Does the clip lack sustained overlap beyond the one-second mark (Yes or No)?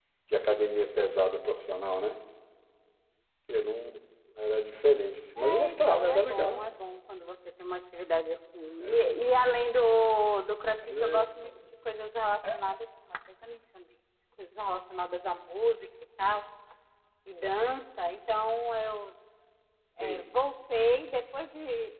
No